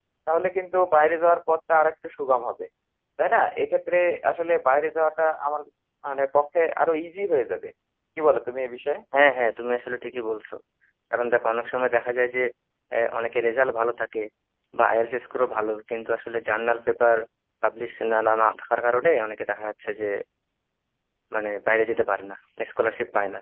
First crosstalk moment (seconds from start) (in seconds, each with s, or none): none